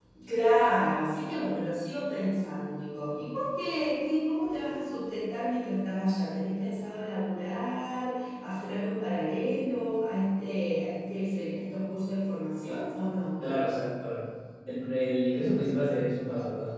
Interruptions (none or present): none